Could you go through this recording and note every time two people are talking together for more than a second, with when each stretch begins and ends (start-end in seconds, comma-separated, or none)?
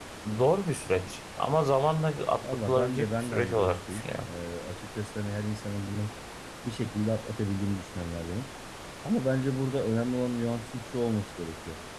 2.4-4.3